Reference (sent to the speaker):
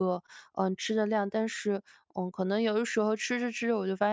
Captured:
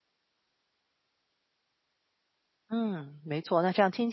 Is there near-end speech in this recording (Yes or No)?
Yes